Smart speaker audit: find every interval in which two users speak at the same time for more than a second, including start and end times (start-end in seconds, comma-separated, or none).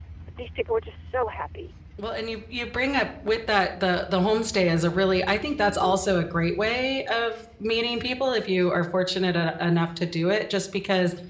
none